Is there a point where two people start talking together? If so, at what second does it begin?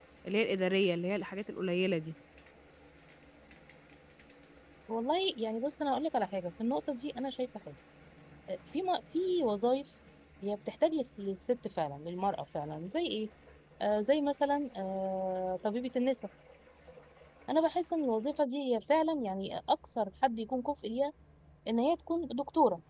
none

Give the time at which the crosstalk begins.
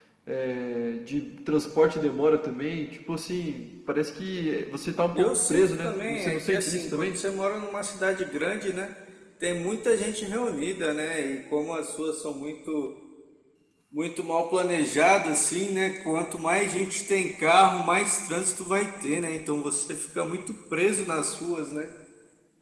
5.1 s

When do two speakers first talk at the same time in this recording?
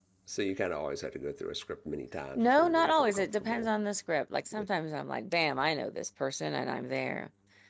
2.4 s

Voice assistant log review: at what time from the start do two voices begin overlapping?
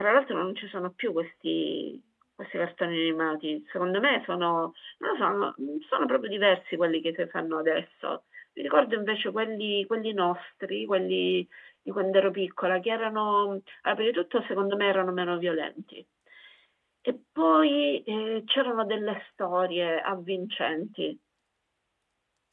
none

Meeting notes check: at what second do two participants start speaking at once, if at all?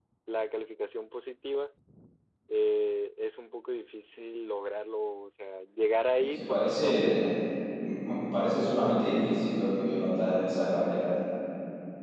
6.2 s

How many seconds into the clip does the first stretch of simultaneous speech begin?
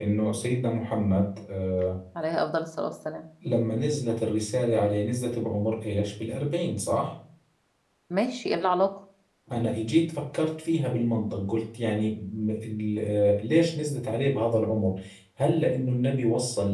none

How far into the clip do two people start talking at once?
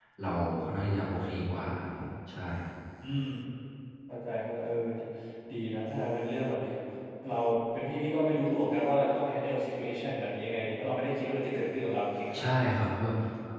none

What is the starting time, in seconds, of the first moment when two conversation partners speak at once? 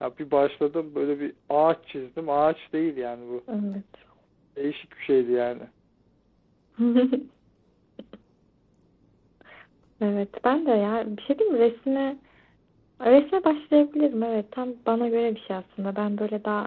none

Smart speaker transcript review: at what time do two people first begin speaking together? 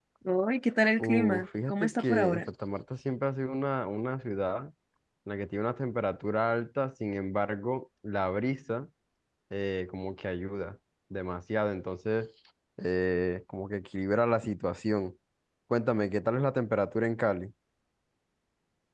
1.0 s

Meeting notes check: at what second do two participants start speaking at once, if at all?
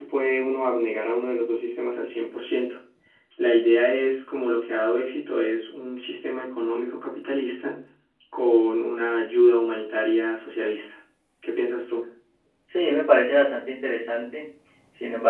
none

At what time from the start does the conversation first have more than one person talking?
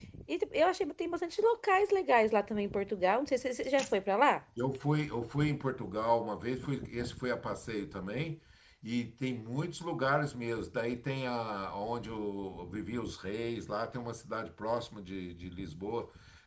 none

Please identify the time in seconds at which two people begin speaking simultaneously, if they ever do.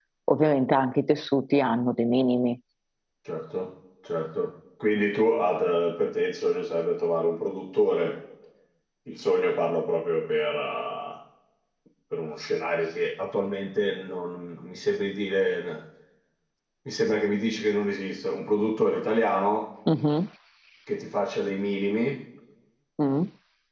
none

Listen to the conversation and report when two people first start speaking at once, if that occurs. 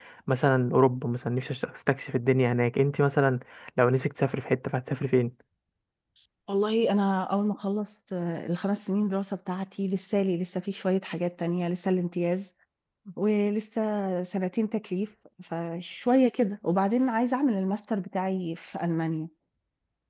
none

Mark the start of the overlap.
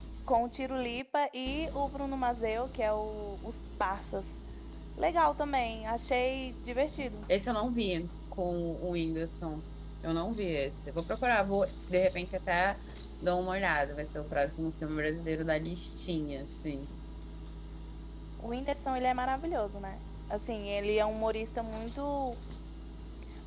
none

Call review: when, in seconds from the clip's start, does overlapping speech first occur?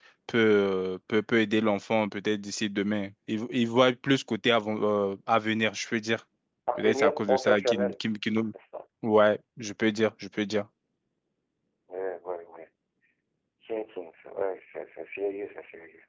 6.8 s

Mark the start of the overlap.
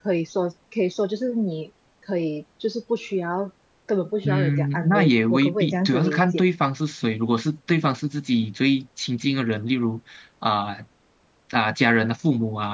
4.2 s

